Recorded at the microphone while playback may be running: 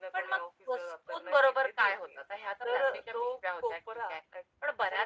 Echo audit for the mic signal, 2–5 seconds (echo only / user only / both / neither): echo only